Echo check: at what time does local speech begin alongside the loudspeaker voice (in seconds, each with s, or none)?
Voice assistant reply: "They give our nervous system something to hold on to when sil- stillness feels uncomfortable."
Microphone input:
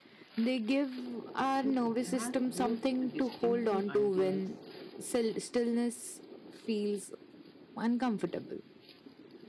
1.6 s